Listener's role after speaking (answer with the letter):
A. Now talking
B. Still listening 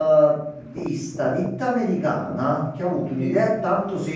B